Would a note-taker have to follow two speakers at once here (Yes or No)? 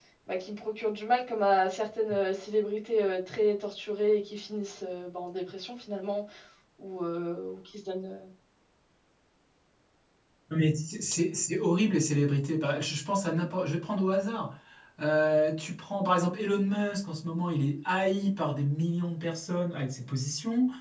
No